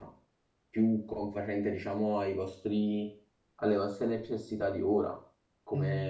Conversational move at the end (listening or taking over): listening